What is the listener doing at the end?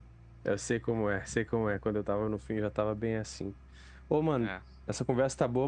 listening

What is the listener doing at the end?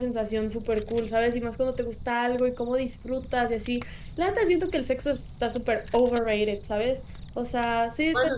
taking over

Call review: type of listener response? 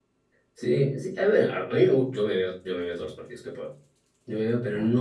listening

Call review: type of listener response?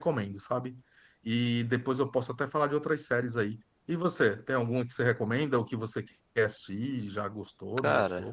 taking over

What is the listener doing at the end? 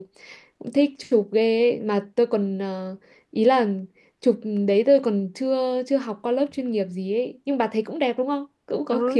taking over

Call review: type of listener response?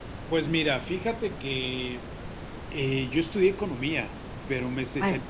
listening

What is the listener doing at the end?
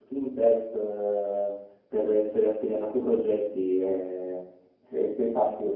listening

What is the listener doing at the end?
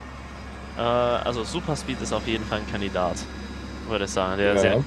listening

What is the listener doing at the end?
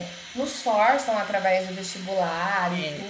listening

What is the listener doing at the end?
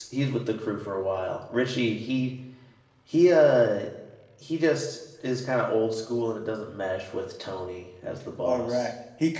taking over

